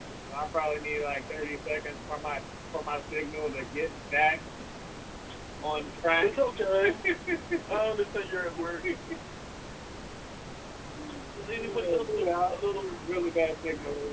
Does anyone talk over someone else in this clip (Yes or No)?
Yes